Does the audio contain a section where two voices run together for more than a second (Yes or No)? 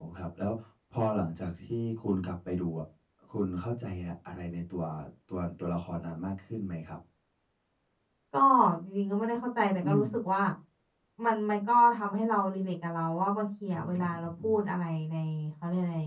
No